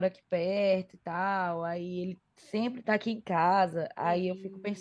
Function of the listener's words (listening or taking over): listening